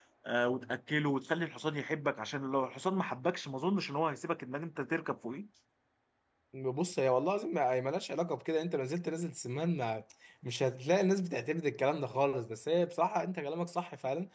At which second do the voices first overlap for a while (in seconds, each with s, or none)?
none